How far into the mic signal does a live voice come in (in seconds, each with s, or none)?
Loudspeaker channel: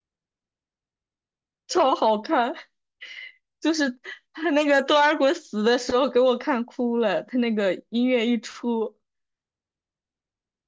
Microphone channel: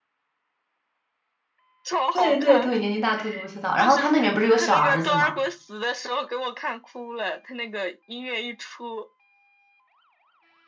2.1 s